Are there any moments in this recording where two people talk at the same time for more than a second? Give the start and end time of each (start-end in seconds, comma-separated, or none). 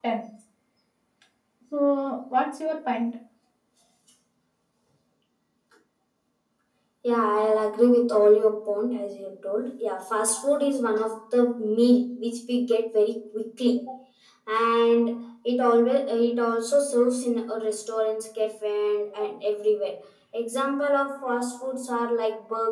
none